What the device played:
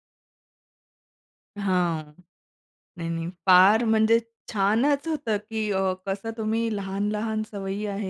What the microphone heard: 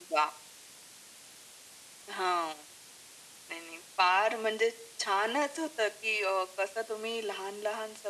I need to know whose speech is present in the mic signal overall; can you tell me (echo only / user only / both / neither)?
echo only